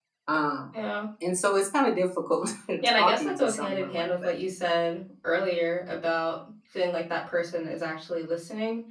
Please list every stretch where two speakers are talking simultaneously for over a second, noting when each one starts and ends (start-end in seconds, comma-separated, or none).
3.0-4.3